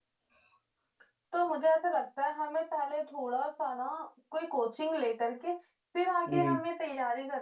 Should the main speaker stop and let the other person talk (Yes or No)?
No